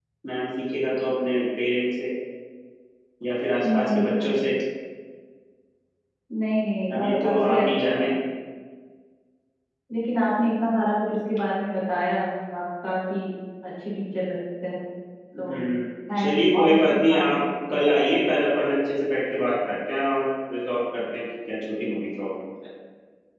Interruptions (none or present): present